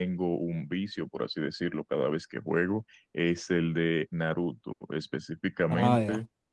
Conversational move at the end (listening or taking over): listening